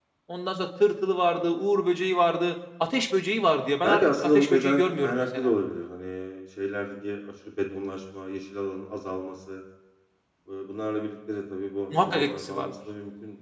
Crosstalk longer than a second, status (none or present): present